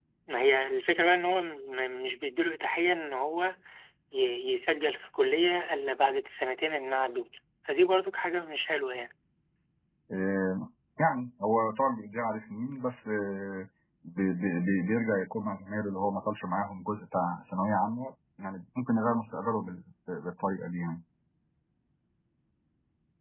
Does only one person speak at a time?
Yes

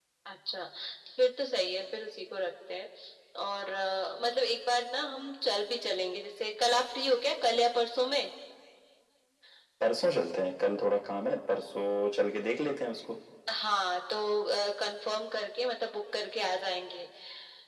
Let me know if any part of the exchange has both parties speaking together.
No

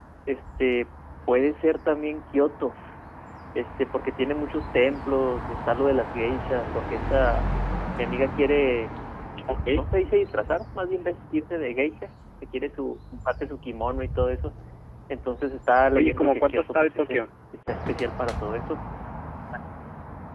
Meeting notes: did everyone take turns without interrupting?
No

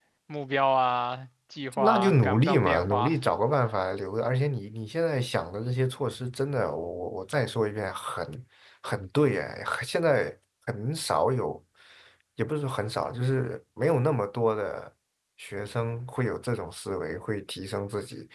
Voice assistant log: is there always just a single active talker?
No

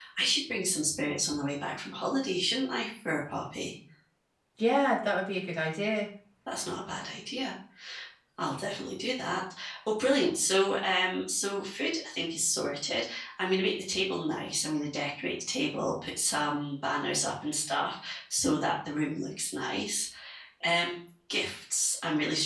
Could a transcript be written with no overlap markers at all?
Yes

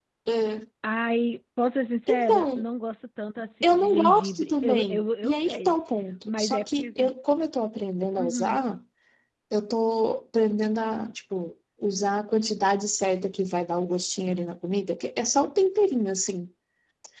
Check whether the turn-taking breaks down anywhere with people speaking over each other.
Yes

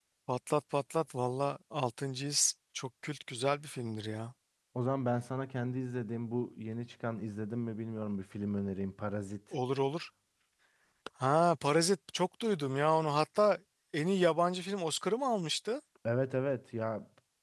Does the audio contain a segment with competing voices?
No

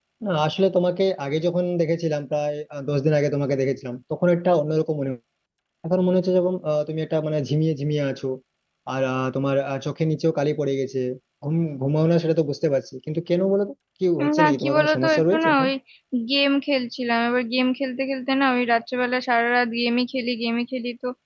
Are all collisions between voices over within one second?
No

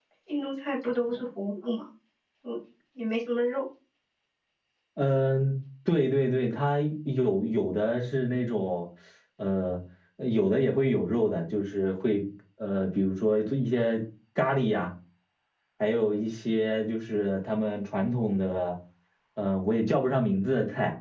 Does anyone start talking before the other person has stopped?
No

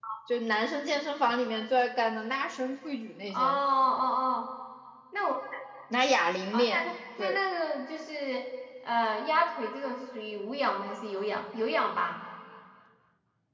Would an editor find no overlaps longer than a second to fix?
Yes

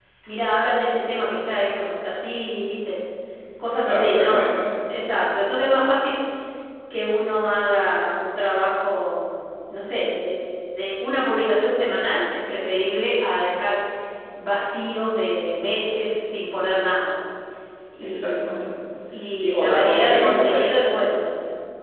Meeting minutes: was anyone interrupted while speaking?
Yes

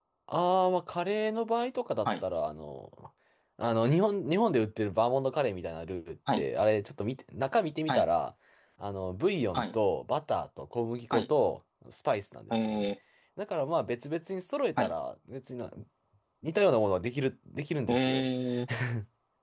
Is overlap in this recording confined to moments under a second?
Yes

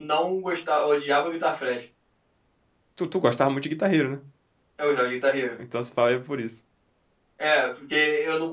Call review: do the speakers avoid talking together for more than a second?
Yes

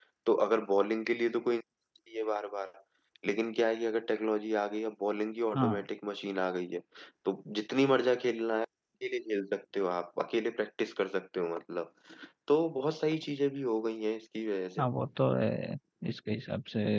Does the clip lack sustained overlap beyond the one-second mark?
Yes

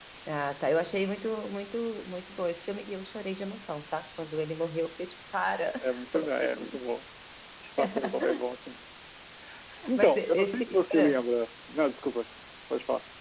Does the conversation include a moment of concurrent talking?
Yes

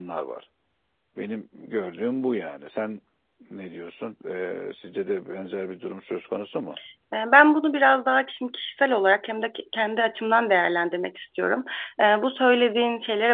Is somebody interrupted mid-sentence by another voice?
No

